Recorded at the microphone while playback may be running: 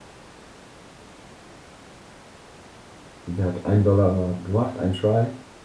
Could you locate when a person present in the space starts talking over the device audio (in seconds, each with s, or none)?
3.2 s